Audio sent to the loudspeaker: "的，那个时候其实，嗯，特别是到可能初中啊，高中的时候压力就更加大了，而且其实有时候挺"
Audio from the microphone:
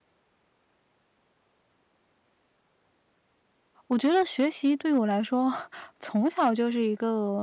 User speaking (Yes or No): Yes